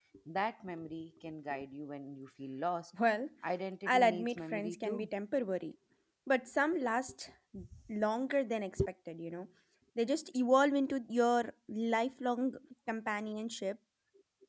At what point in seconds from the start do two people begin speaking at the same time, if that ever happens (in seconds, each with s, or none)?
3.9 s